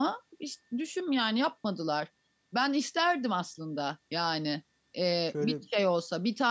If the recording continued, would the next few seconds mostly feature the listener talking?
No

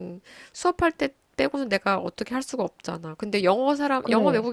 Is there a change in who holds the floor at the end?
No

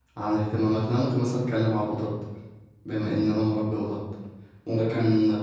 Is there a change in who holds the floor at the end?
No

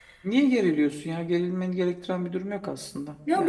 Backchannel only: No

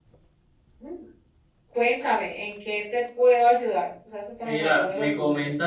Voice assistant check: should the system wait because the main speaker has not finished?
No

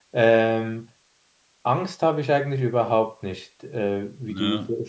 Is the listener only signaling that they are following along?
Yes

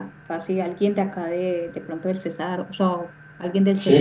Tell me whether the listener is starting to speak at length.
Yes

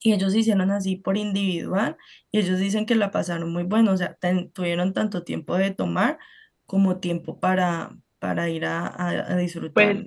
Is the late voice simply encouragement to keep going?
No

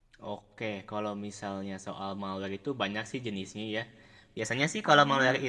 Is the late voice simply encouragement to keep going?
Yes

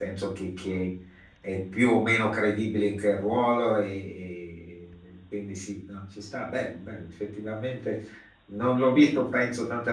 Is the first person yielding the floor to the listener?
No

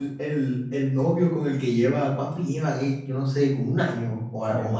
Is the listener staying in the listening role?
No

